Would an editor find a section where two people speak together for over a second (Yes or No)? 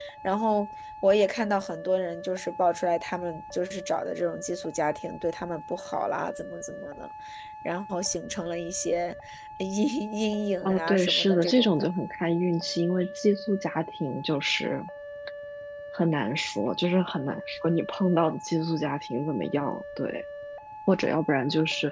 Yes